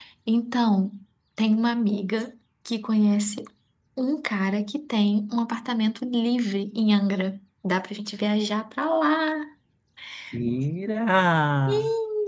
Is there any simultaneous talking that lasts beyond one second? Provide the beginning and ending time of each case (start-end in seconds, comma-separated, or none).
none